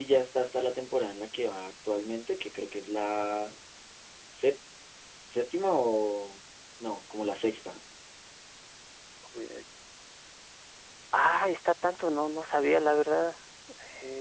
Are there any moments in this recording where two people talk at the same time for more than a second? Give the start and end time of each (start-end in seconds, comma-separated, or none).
none